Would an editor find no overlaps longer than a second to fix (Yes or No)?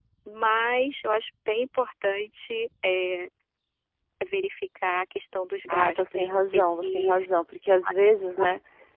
No